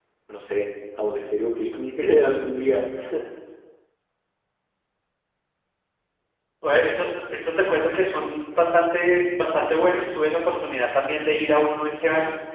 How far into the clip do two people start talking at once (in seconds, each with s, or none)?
none